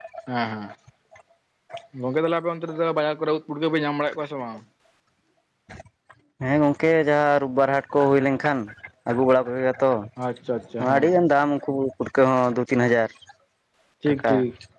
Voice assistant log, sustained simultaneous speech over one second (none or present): none